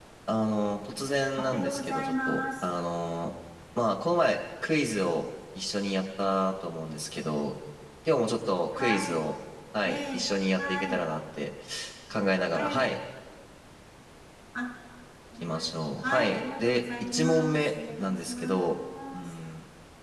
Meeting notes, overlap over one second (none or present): present